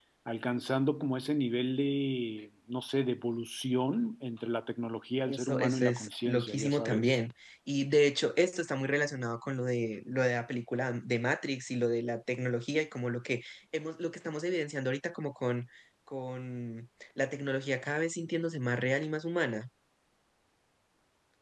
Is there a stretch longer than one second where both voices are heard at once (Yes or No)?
Yes